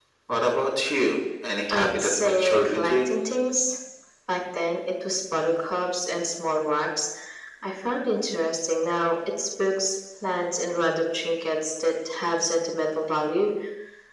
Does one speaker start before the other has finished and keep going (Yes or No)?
Yes